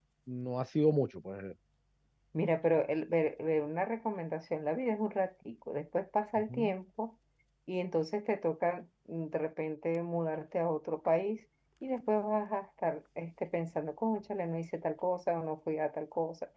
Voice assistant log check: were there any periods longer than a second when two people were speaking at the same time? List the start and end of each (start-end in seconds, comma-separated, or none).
none